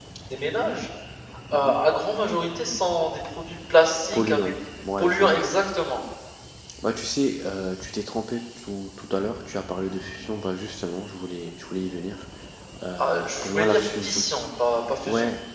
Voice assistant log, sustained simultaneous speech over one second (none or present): present